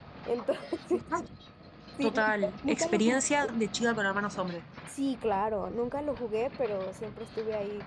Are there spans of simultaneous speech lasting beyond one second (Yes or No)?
Yes